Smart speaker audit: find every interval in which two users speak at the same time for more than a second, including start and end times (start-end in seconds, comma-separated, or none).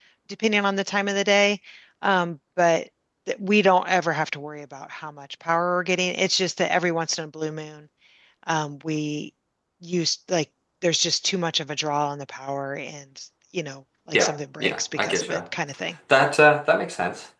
14.1-15.4